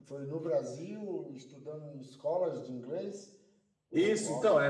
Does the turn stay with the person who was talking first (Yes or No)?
No